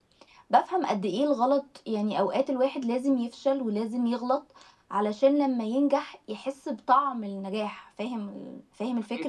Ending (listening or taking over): taking over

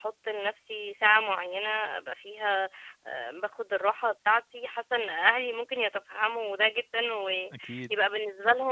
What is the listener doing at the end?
listening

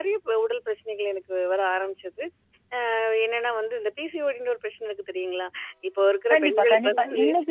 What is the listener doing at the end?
taking over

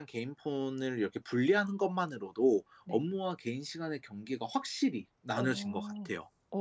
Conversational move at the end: taking over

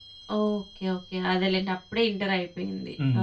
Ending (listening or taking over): taking over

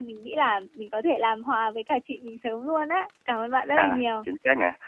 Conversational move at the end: taking over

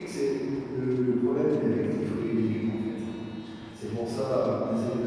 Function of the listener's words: listening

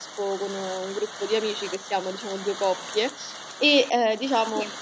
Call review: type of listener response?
listening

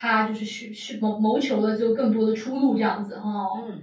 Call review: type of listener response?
taking over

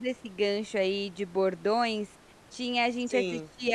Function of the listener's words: listening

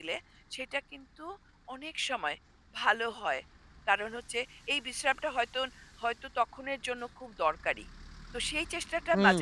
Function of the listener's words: taking over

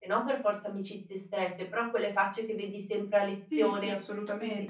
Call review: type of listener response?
taking over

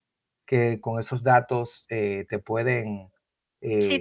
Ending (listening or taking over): taking over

